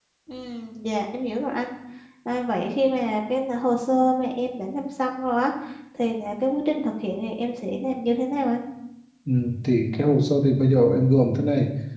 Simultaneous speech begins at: none

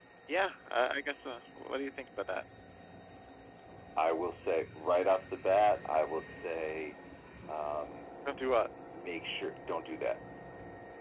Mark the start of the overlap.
none

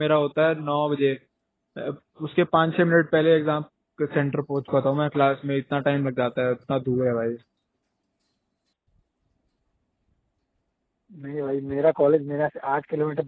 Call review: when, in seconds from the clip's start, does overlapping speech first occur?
none

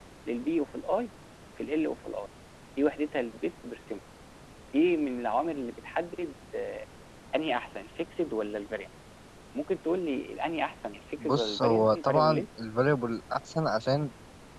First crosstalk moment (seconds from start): 11.2 s

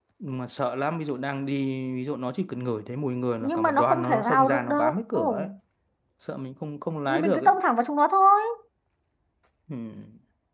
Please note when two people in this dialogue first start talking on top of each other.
3.4 s

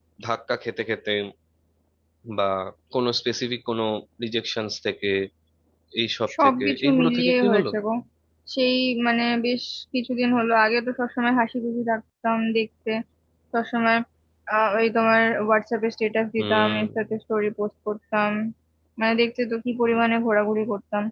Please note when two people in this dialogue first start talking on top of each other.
6.4 s

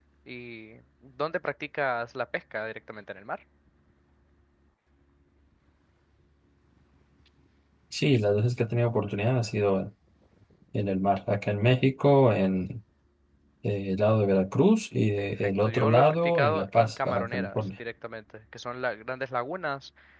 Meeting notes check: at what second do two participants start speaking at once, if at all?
15.2 s

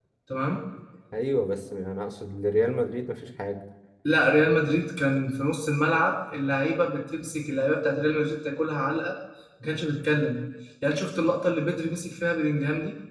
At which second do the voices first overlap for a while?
none

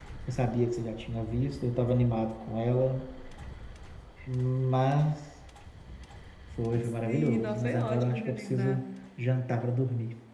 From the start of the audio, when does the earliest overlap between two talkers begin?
7.0 s

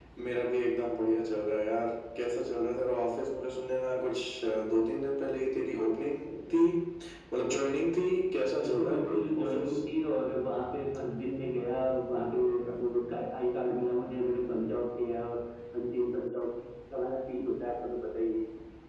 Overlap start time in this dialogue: 8.6 s

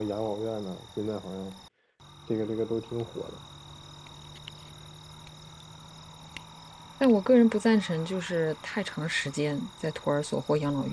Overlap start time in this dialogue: none

